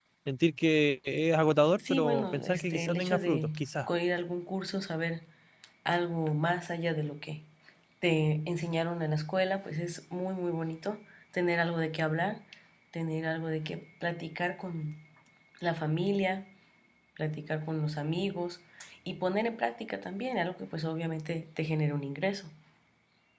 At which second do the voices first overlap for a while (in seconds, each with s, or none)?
1.7 s